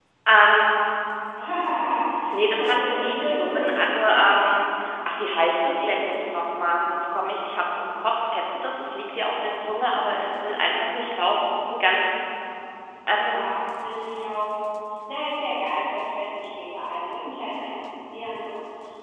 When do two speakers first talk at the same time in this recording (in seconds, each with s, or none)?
2.5 s